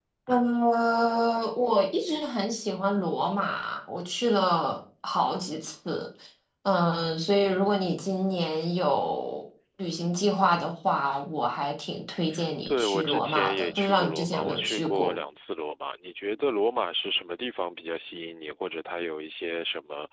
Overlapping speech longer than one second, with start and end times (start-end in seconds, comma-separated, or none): 12.7-15.1